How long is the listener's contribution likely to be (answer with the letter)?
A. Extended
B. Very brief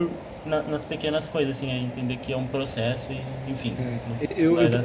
A